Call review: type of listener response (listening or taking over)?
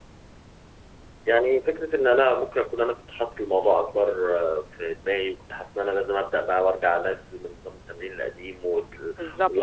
listening